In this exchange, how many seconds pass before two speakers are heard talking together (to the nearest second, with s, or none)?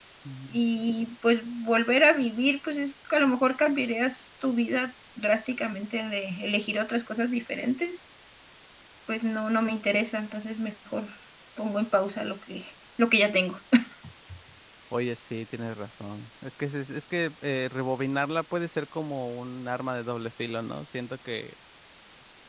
none